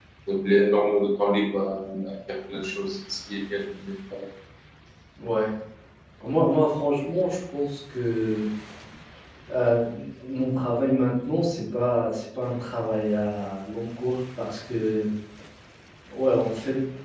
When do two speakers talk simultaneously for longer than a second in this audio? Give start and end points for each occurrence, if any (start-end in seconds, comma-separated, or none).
none